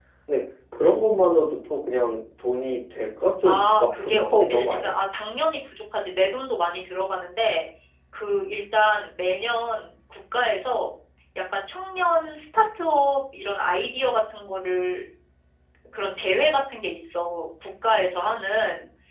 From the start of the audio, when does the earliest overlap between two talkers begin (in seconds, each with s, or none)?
3.4 s